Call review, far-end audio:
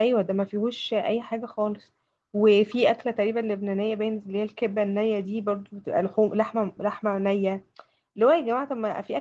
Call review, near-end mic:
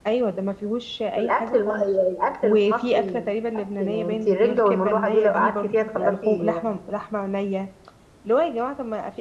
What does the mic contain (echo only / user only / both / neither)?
both